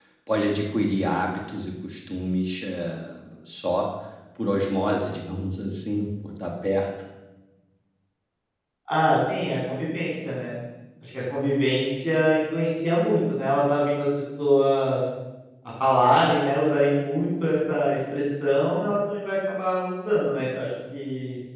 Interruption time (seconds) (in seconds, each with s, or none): none